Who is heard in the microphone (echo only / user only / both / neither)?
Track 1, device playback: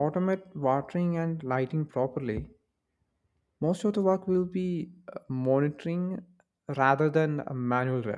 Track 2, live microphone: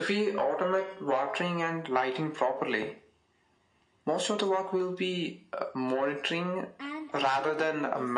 both